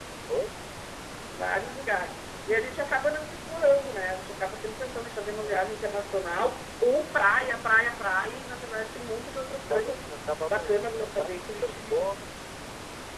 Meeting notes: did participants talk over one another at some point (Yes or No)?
Yes